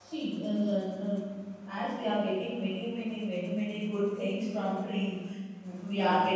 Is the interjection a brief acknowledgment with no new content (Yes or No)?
Yes